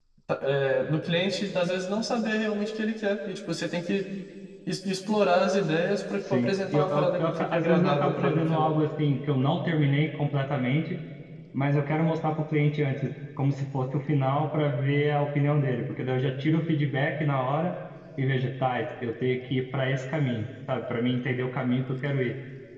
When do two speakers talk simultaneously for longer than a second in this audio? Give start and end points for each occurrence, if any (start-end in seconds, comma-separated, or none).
6.3-8.7